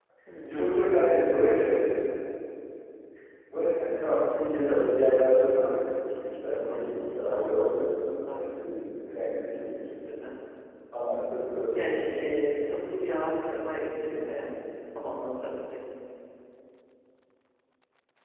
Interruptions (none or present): present